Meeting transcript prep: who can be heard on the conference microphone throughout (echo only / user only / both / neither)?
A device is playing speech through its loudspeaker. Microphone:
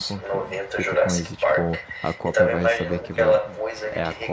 both